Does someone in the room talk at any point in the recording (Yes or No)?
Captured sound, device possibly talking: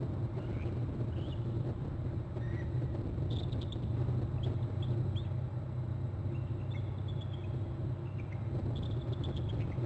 No